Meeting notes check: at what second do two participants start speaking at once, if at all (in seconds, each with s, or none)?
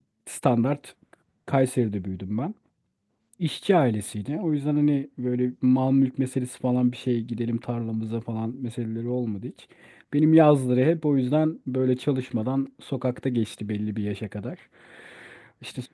none